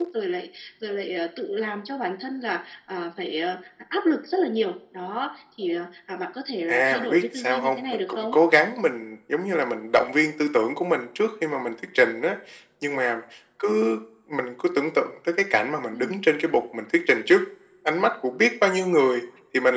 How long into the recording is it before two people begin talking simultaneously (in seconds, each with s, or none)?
6.7 s